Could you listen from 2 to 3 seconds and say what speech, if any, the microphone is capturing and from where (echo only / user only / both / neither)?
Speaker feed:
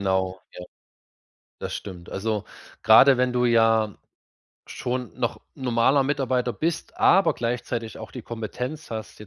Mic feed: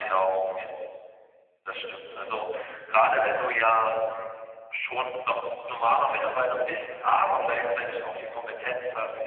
echo only